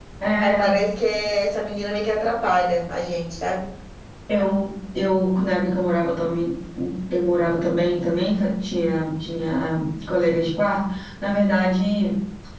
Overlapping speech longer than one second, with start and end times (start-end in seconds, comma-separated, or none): none